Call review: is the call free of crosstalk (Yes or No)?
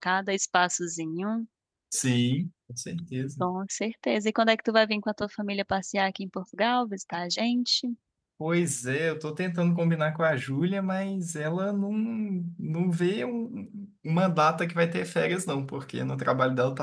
Yes